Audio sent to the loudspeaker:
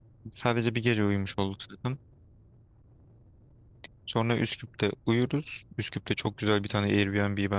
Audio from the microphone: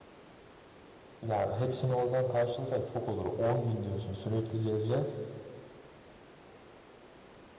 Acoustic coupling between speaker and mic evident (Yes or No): No